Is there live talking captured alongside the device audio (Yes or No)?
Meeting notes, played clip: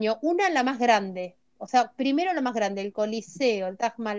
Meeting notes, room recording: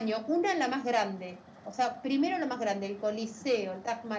No